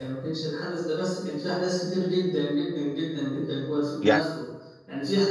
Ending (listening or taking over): listening